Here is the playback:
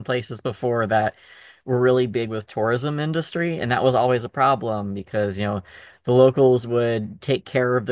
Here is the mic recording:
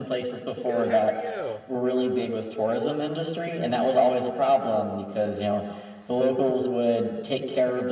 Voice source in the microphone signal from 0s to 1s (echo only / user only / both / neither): both